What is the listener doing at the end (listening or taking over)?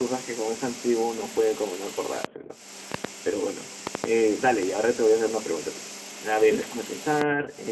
listening